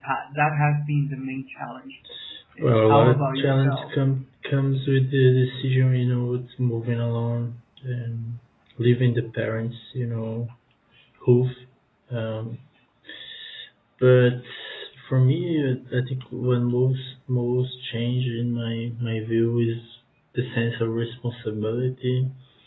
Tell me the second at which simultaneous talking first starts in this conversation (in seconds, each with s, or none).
2.6 s